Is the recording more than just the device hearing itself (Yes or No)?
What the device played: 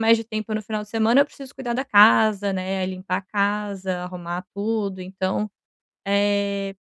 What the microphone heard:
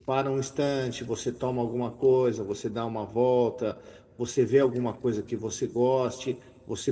Yes